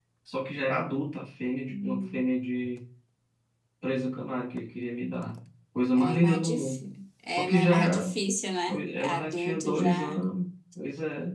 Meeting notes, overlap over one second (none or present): present